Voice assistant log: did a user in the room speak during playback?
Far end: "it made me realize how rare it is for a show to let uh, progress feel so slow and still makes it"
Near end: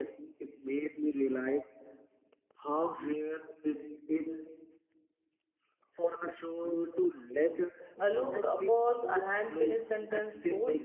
Yes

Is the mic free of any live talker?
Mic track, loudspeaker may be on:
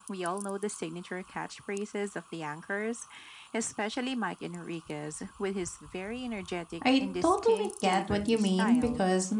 No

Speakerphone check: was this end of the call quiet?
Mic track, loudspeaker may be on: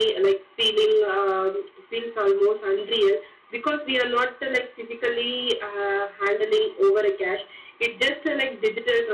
Yes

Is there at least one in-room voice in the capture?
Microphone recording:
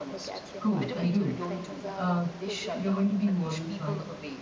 Yes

